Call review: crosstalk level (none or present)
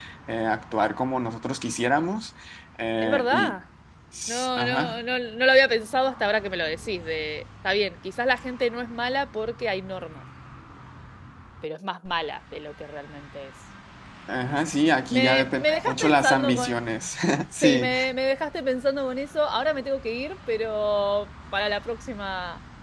present